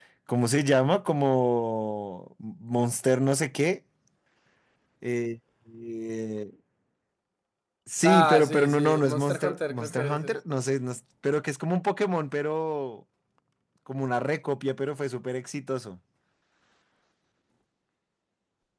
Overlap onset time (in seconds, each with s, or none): 8.0 s